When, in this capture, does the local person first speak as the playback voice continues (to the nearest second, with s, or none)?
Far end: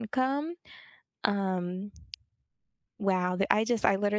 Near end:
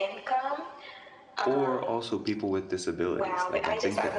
1 s